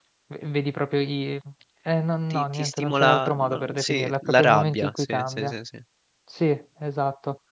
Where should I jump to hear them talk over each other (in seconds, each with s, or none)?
2.3 s